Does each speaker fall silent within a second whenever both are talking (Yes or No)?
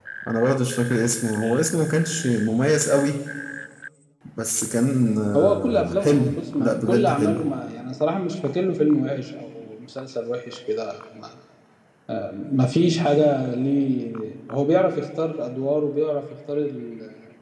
No